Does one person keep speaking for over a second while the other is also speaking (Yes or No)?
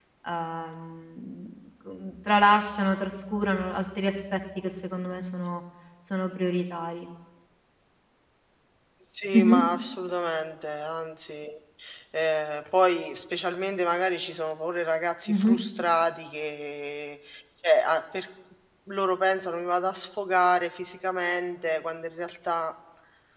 No